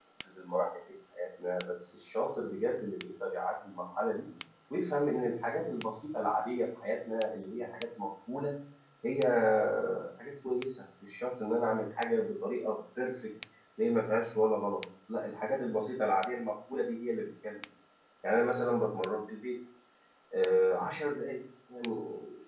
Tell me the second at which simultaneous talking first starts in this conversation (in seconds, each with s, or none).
none